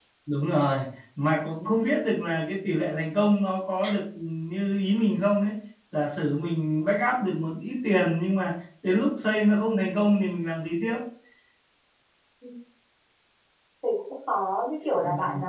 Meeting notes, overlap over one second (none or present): none